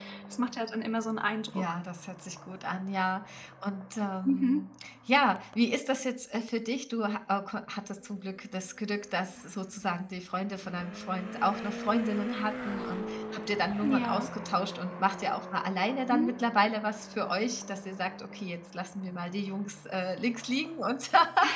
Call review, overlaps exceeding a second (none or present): none